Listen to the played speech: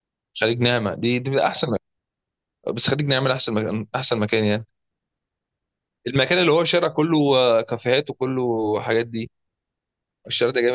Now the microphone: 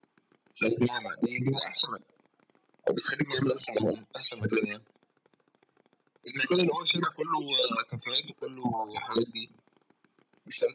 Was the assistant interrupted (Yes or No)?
No